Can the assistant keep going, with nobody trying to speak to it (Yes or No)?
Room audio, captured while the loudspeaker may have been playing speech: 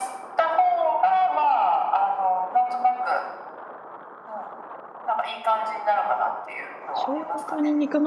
No